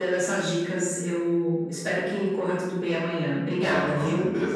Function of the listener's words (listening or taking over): taking over